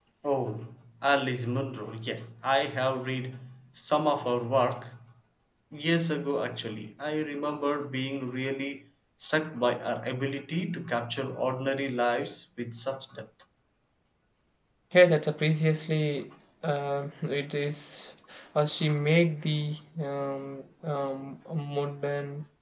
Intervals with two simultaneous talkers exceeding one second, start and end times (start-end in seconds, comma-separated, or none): none